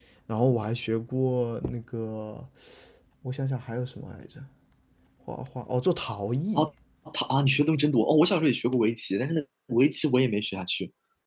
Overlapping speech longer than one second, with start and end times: none

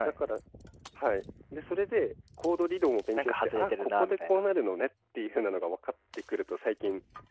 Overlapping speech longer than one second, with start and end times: 3.2-4.5

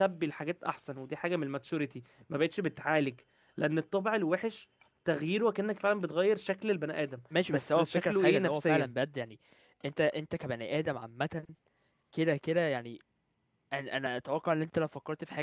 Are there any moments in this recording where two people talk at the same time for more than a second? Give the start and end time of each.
7.5-8.9

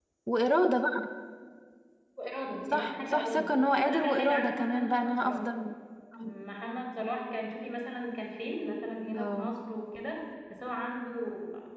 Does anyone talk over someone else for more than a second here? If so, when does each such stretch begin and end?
2.7-5.4

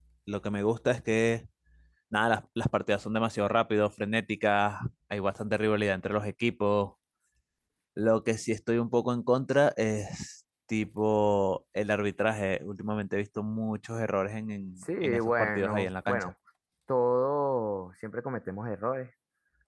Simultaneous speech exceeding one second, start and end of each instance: 14.8-16.3

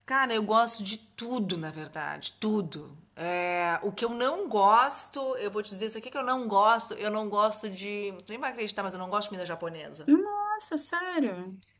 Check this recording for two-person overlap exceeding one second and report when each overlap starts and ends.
none

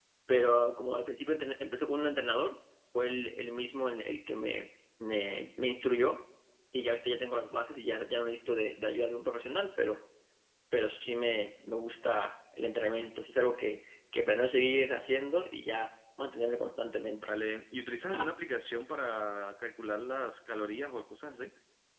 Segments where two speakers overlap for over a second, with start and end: none

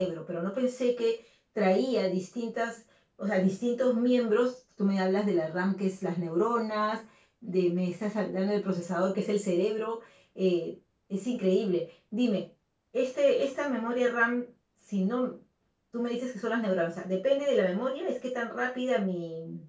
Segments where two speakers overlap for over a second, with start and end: none

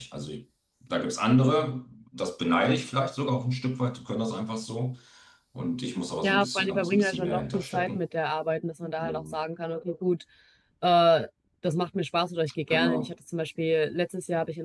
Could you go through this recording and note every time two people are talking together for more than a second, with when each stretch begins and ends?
6.2-8.0

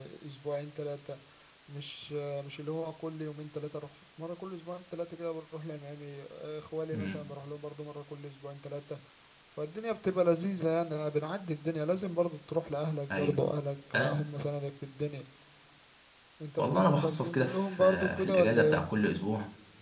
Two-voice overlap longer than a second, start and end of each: 16.6-18.9

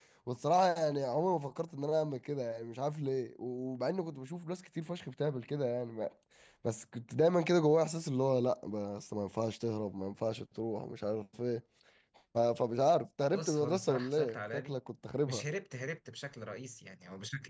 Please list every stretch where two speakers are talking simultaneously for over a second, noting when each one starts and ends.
13.3-14.8

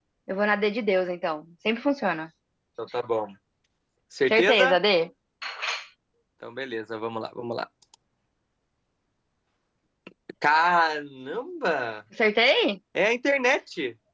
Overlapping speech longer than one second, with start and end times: none

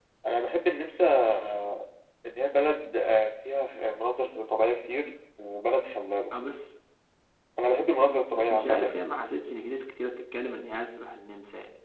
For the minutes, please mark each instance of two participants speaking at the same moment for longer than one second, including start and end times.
none

